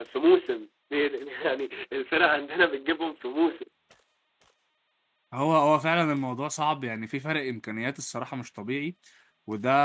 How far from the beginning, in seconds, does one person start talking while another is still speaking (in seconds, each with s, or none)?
none